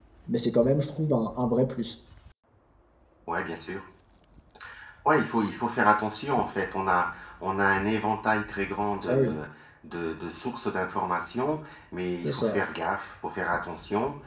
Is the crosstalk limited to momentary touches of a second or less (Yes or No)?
Yes